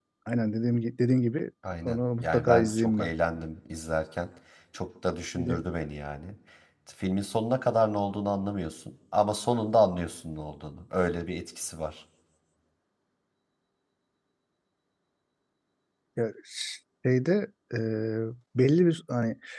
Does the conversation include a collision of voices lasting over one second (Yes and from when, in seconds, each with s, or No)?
Yes, from 1.6 s